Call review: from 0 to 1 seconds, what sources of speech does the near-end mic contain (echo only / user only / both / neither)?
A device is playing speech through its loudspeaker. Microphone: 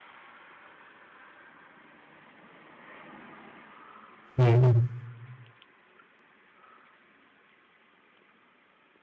neither